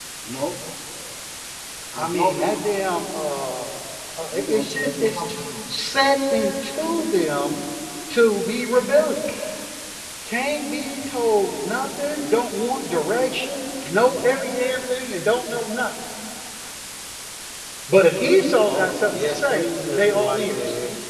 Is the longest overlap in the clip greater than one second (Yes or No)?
Yes